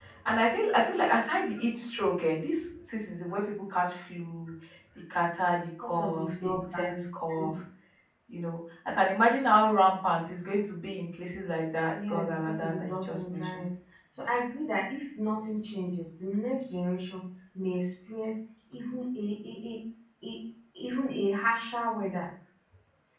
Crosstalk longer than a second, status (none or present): present